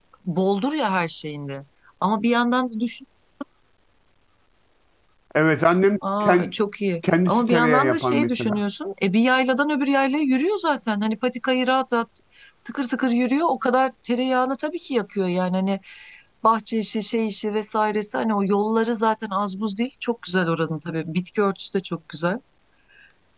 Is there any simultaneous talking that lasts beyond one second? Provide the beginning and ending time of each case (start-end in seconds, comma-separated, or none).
7.3-8.6